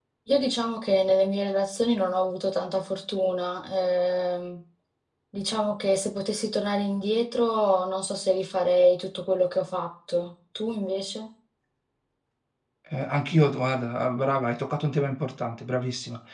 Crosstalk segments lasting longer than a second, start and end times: none

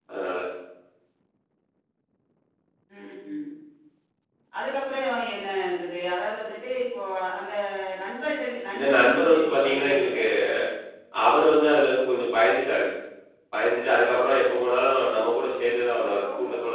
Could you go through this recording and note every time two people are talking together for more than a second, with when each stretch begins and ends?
8.7-10.2

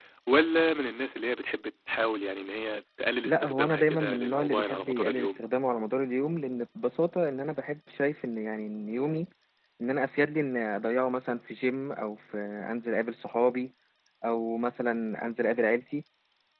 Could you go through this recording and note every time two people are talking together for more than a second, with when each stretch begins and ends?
3.2-5.4

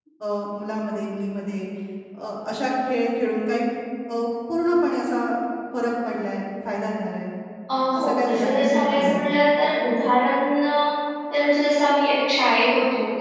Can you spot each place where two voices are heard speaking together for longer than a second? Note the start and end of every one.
8.0-9.4

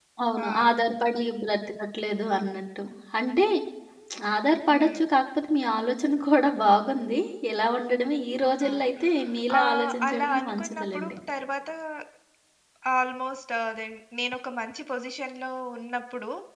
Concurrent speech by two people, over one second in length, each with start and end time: 9.6-11.2

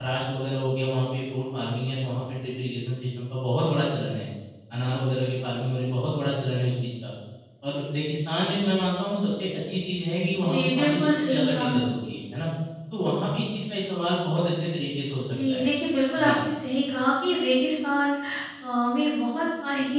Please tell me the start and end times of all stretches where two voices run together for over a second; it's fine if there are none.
10.5-11.8

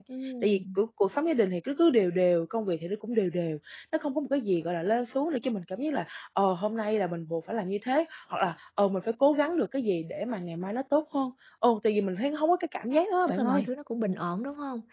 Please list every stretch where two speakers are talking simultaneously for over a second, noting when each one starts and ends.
none

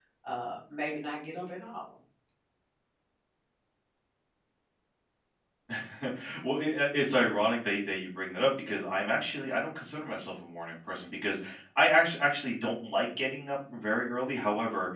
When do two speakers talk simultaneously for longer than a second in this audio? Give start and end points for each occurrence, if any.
none

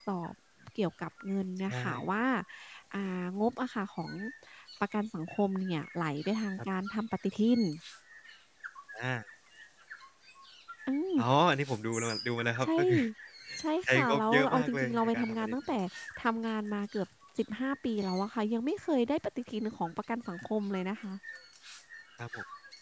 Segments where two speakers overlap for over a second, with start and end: 13.8-15.6

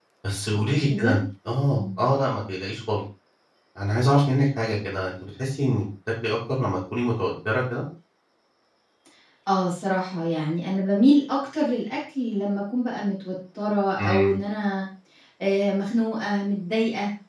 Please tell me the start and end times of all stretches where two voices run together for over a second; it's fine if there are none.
none

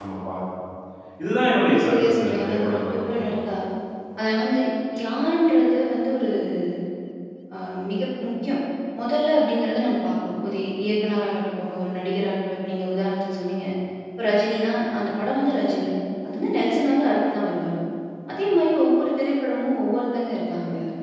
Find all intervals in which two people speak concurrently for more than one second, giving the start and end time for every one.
1.6-3.3

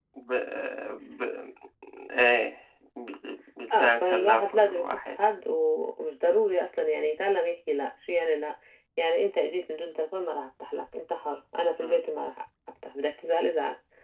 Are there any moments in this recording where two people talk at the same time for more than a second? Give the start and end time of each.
3.8-5.2

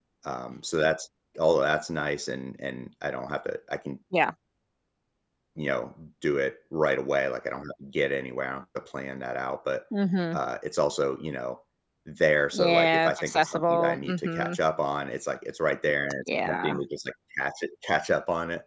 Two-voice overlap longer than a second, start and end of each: 12.5-14.6

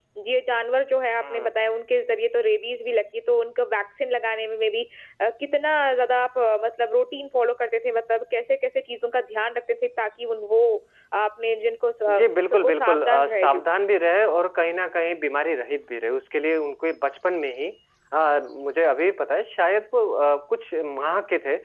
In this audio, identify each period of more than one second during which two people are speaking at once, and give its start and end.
12.2-13.6

